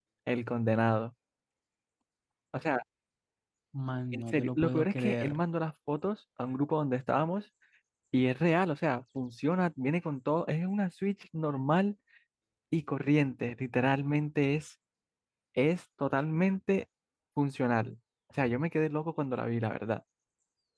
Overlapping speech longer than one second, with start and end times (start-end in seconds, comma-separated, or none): 4.1-5.4